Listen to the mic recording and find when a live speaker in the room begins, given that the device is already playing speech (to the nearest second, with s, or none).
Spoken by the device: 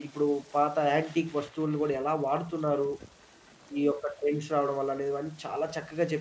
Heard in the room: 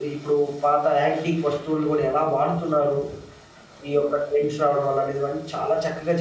none